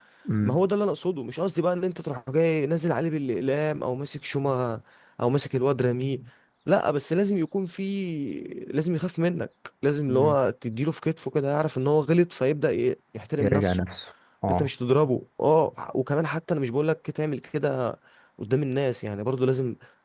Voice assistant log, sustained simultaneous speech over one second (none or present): none